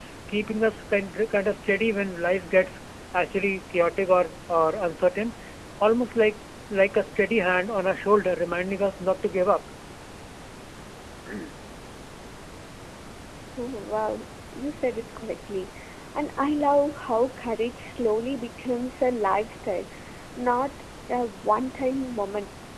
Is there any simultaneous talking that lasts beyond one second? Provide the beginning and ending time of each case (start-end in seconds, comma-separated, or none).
none